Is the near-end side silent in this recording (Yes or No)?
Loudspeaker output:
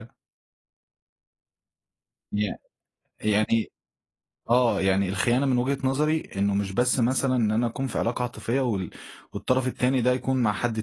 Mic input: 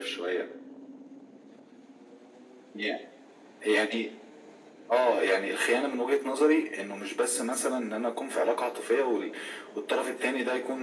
Yes